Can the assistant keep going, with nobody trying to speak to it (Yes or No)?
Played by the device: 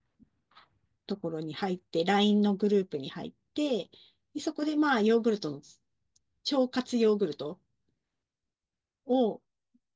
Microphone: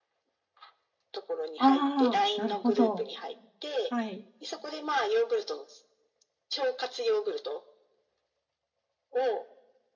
No